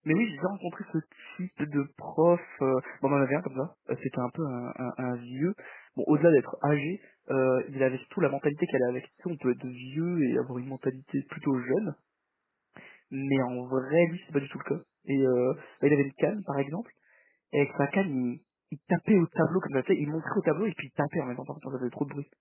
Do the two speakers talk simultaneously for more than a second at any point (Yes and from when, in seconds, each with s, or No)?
No